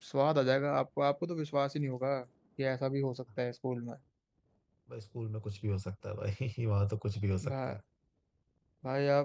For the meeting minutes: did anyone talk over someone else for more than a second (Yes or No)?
No